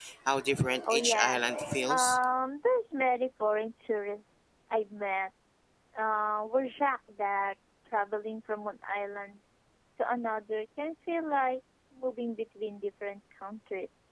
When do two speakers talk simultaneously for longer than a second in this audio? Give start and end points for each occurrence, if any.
0.8-2.2

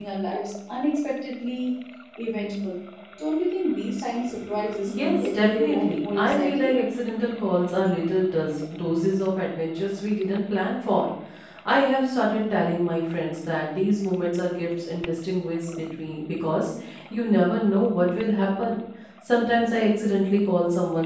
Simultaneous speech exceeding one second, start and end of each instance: 4.9-6.7

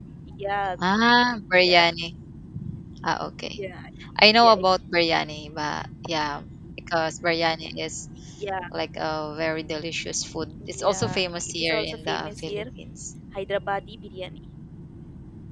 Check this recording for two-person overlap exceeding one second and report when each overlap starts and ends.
10.7-12.6

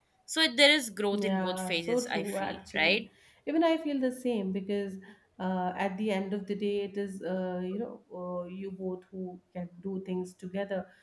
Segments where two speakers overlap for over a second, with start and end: 1.1-3.0

